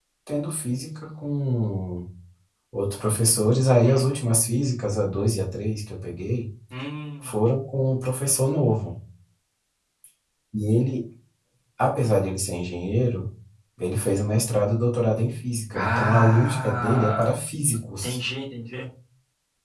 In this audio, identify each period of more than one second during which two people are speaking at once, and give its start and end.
15.7-17.3

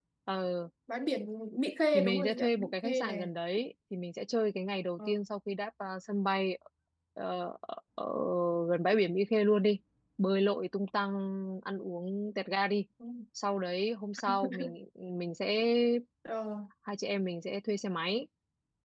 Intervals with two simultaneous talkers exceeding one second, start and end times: 1.9-3.2

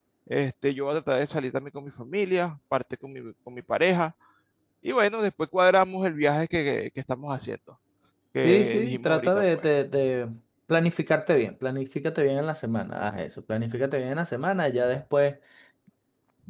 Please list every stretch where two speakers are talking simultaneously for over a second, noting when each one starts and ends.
8.4-9.6

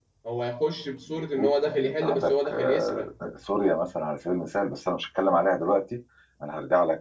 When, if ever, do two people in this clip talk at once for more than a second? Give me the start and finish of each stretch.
1.1-3.1

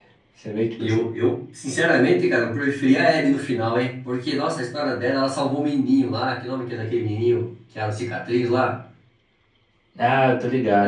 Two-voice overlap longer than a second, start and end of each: none

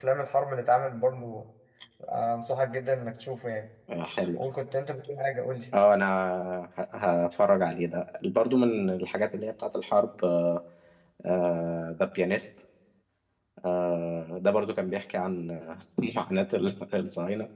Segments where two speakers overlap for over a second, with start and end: none

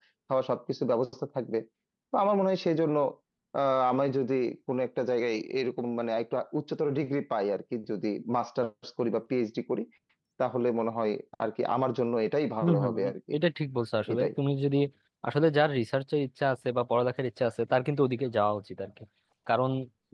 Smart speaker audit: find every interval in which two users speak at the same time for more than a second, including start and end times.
none

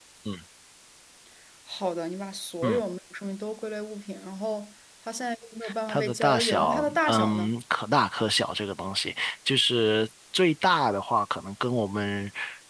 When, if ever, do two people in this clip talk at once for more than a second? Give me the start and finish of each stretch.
5.9-7.5

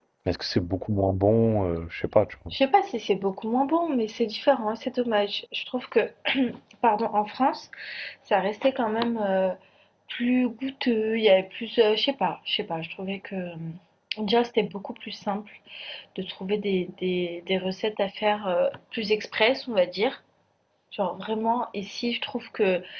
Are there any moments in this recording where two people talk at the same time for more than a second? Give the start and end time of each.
none

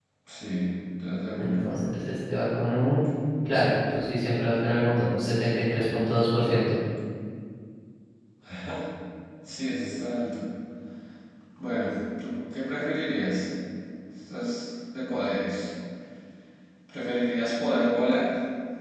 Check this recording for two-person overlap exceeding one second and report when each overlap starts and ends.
none

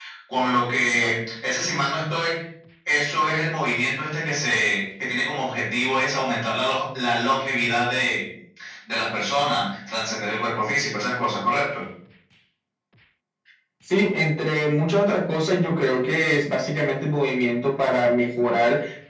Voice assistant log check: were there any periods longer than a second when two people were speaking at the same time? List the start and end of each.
none

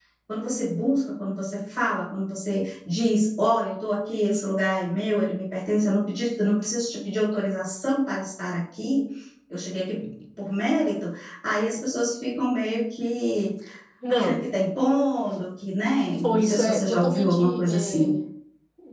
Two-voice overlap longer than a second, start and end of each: 16.2-18.1

